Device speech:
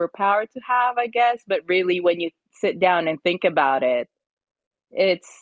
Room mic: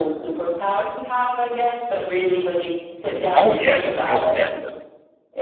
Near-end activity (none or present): present